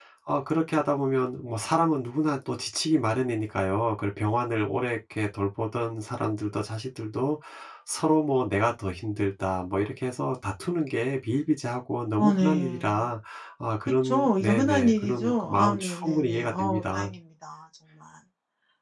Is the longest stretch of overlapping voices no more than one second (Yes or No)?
No